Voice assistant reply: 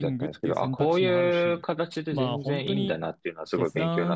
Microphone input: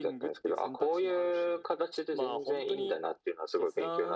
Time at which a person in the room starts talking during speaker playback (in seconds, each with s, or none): none